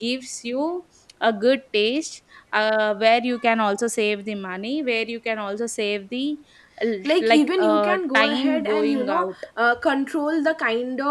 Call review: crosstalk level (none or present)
present